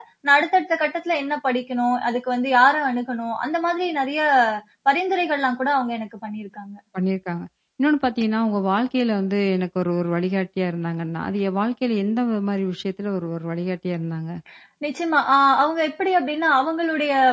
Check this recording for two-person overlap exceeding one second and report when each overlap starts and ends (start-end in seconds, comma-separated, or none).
none